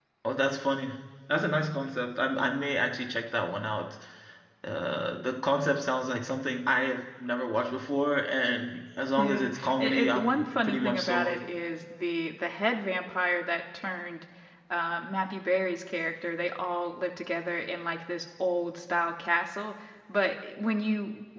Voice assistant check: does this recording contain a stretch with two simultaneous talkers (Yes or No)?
Yes